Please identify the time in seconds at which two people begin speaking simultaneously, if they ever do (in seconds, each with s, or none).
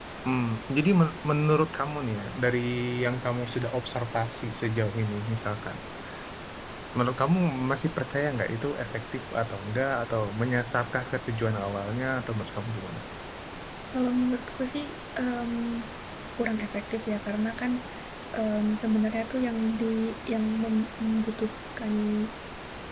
none